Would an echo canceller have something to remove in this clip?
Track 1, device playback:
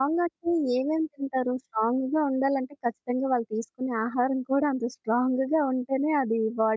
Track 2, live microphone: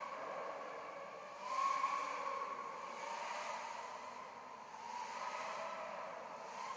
No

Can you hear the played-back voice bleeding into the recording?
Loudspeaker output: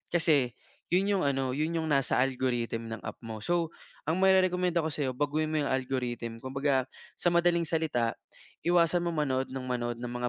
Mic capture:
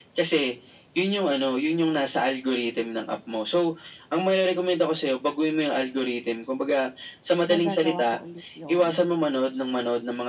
Yes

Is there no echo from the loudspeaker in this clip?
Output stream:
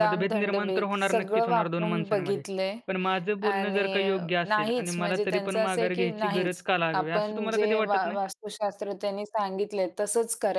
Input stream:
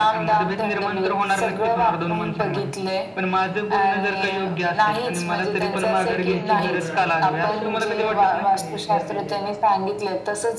No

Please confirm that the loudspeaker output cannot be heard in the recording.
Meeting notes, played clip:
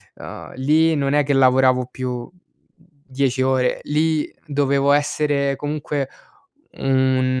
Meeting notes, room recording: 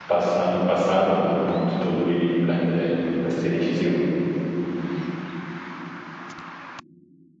Yes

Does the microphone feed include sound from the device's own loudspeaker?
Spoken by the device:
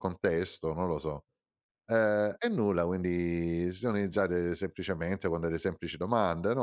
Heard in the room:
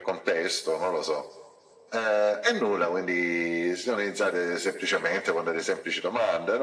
Yes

